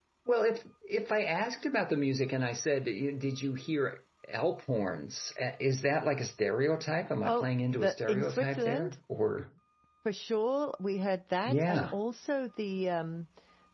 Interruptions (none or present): present